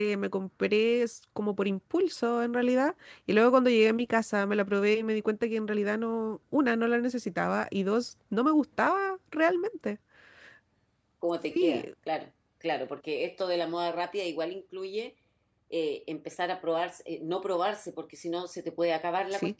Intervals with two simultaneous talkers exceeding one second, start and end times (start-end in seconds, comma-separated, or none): none